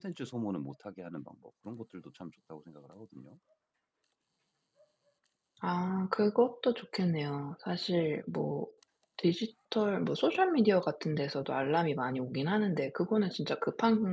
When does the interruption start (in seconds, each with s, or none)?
none